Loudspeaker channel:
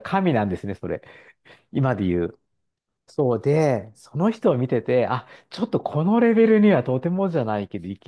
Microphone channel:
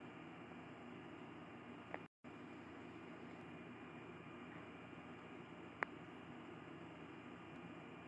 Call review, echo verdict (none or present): none